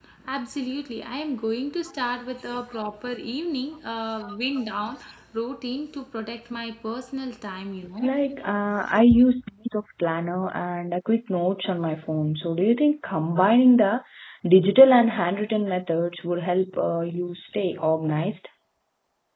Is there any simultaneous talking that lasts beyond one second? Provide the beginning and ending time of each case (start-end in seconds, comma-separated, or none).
none